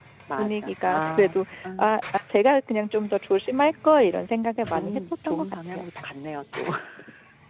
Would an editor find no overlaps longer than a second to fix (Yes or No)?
No